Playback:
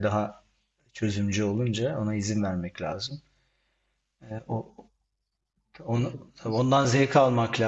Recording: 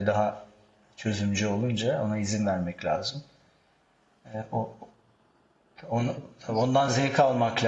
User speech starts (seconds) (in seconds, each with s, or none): none